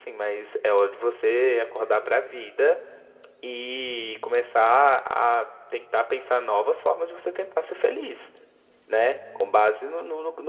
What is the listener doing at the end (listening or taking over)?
listening